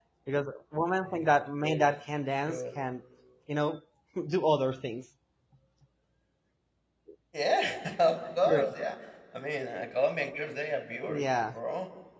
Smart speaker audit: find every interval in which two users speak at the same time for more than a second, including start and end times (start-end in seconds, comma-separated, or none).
1.0-2.6